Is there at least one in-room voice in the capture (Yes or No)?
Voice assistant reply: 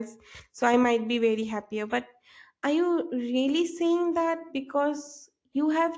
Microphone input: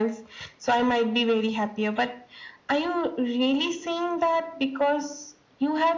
No